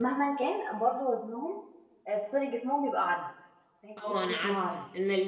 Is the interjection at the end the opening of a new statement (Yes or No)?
Yes